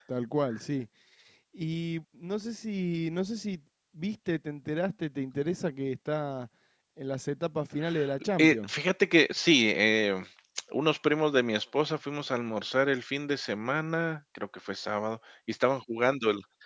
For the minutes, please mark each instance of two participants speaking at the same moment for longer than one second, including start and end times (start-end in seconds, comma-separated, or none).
none